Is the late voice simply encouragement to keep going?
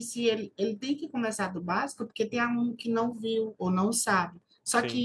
Yes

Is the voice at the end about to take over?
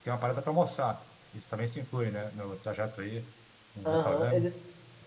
Yes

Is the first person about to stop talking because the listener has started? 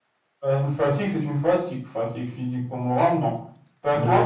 Yes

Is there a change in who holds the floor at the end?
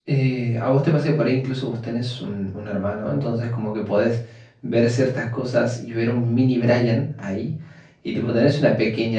No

